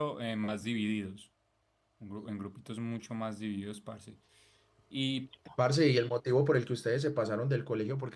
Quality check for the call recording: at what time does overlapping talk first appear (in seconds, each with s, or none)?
none